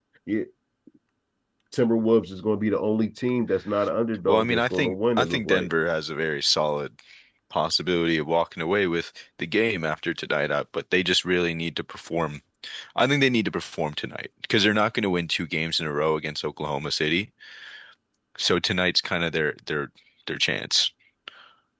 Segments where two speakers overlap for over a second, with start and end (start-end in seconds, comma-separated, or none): 4.3-5.7